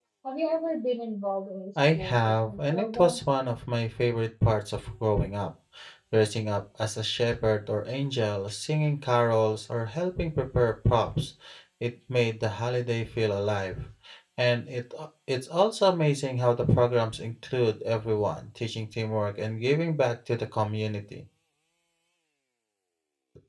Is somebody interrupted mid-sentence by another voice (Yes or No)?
Yes